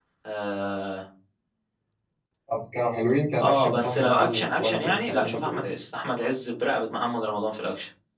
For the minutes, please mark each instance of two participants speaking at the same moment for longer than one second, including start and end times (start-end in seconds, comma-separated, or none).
3.4-5.6